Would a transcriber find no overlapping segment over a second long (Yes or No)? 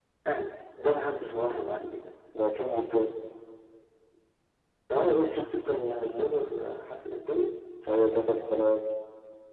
Yes